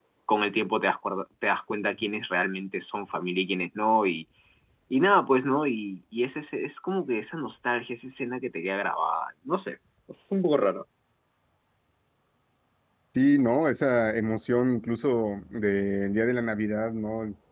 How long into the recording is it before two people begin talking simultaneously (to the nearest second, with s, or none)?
none